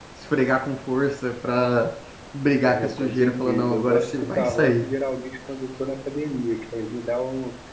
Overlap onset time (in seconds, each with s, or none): 2.6 s